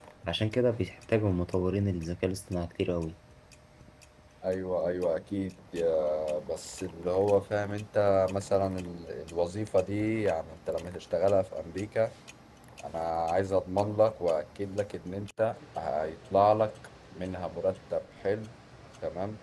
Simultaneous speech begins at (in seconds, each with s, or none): none